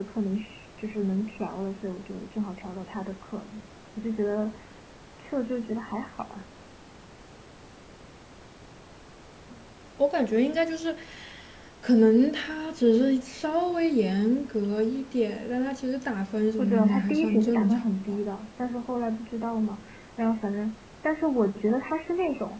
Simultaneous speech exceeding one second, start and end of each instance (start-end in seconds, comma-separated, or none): 16.6-17.9